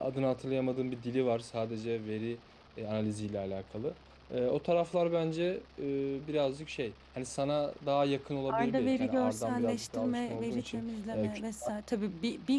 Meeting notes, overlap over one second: present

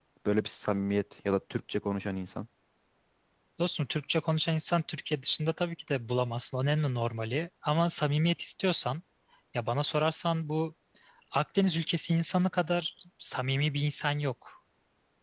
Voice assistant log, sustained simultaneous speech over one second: none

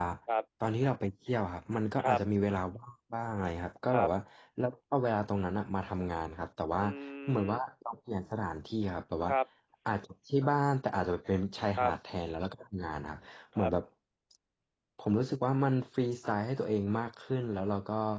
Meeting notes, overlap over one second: none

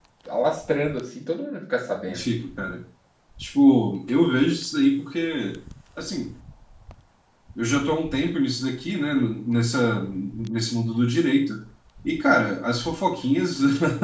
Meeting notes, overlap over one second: none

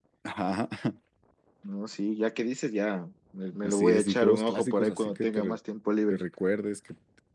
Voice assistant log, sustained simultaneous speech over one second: present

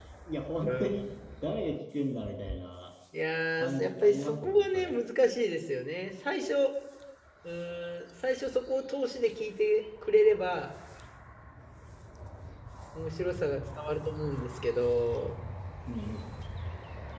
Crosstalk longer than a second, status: present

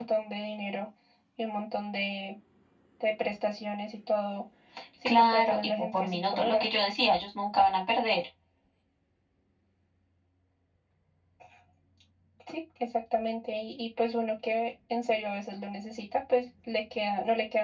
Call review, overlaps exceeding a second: present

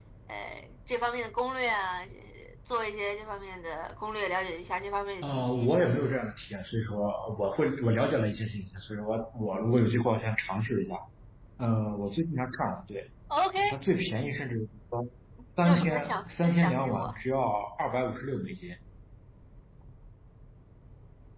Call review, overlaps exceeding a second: present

